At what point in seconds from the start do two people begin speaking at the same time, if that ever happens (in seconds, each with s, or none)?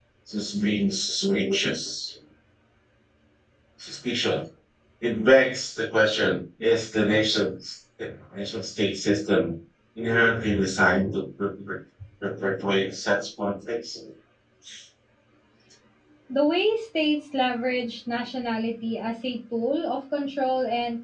none